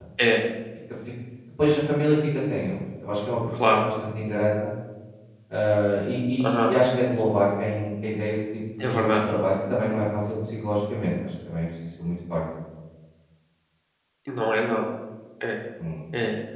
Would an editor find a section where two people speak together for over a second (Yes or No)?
No